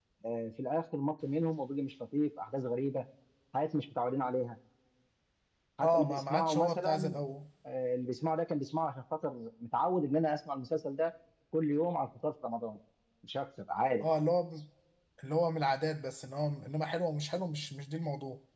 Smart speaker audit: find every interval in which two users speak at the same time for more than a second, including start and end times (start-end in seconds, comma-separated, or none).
5.8-7.2